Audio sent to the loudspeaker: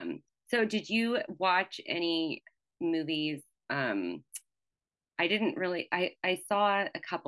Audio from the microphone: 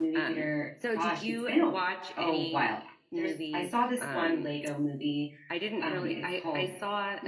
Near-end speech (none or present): present